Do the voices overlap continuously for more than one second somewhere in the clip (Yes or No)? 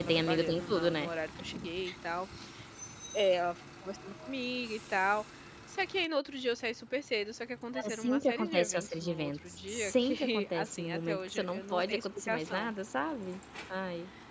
Yes